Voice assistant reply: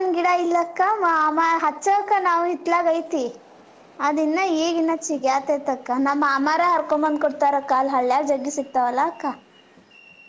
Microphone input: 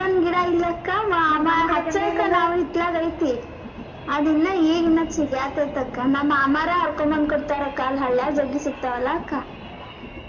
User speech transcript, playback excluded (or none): ಮತ್ನಮ್ಕಡೆ ಬಂದೇ ಇಲ್ಲಲ್ಲ.